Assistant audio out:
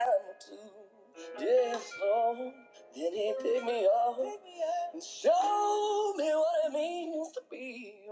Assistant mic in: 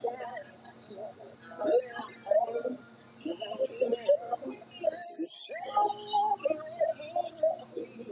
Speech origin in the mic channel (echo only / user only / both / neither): echo only